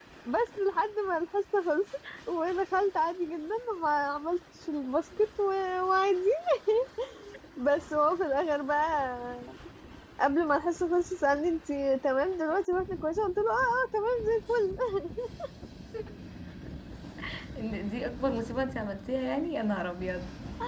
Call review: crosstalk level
none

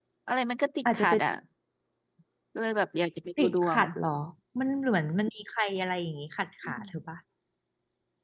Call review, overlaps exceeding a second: none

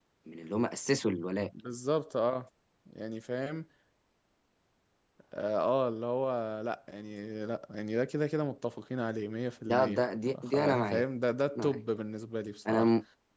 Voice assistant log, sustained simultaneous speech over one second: present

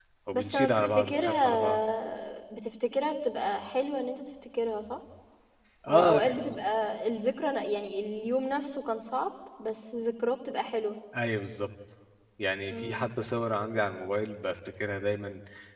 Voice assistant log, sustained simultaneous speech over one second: present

